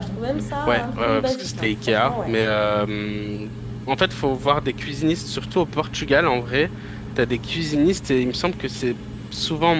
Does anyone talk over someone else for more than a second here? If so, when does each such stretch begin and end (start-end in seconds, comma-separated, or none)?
0.7-2.3